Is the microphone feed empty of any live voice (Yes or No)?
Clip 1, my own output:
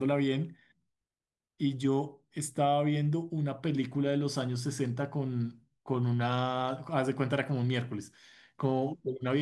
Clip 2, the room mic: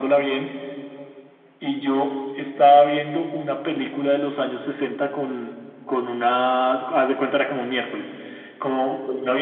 Yes